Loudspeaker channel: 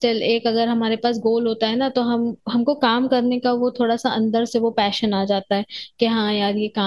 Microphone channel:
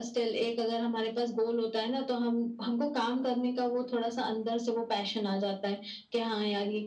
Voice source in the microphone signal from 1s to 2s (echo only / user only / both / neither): echo only